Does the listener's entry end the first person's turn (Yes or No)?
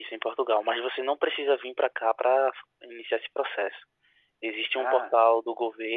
No